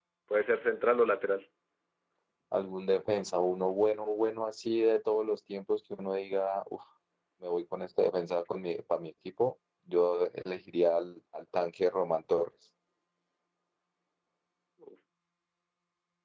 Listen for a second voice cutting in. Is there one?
No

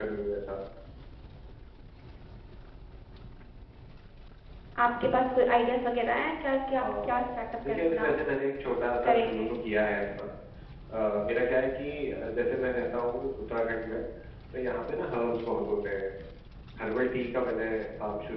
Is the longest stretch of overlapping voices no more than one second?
No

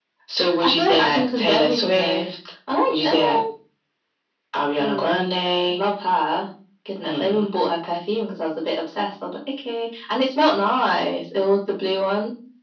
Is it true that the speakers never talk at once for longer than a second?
No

